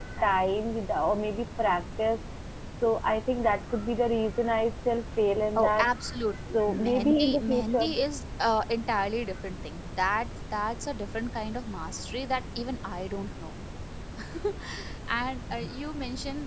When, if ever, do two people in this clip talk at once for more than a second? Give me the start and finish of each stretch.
6.7-7.8

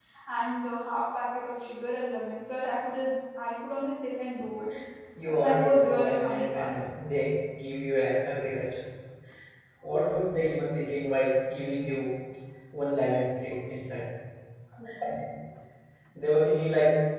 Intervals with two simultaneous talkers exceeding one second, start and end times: 5.3-6.7

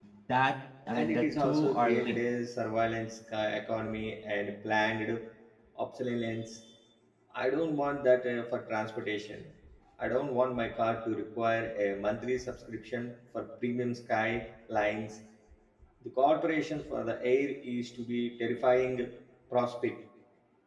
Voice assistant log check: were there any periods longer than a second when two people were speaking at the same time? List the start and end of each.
0.9-2.2

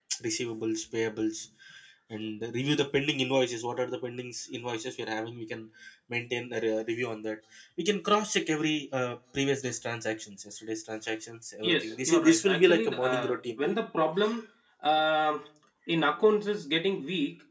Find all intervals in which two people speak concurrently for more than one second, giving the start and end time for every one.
11.6-13.6

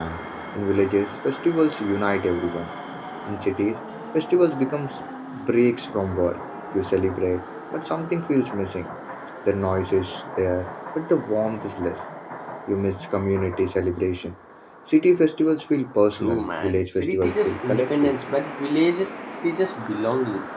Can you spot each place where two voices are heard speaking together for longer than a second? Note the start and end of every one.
16.1-18.2

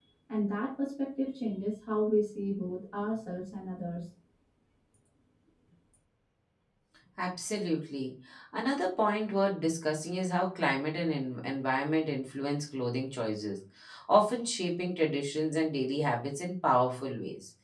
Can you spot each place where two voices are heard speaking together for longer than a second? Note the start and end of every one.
none

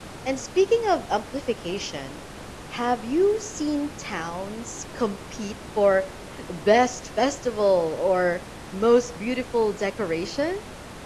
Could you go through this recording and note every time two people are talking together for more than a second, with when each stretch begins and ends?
none

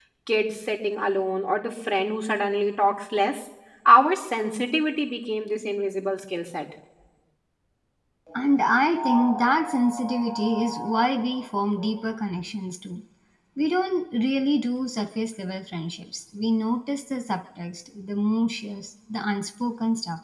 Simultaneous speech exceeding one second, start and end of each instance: none

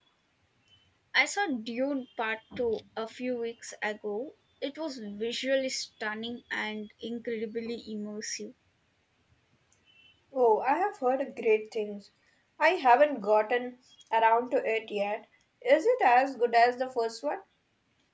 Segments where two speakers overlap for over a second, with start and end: none

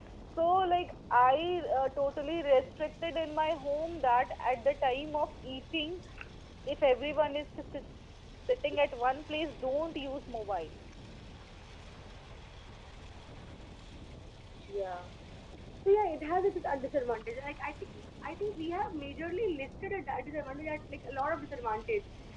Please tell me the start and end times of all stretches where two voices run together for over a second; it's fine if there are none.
none

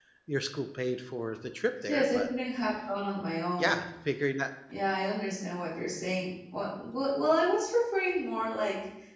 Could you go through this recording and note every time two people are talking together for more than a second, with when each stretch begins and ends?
none

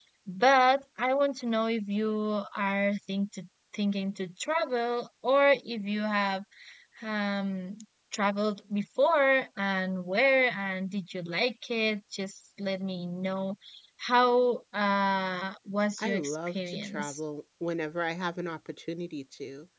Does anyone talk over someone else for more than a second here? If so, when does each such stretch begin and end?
16.0-17.2

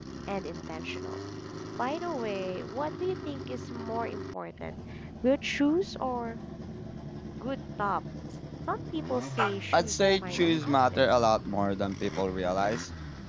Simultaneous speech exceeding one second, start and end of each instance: 9.7-11.0

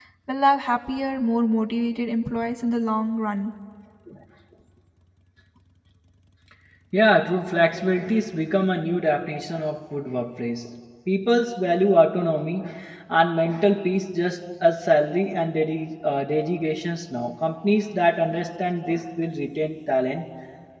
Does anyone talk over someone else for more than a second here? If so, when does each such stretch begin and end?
none

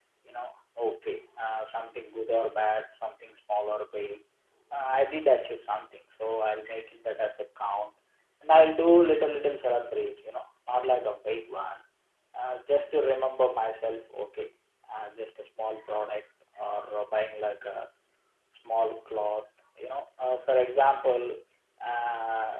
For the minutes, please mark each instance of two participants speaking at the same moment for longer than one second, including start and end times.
none

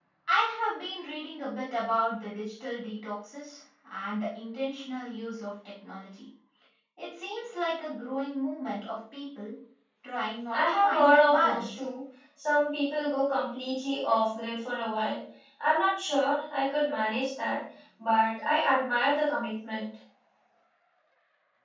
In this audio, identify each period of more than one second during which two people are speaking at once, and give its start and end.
10.5-11.8

